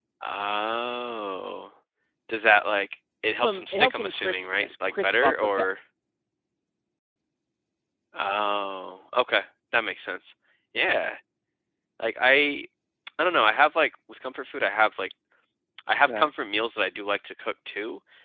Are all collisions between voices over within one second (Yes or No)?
No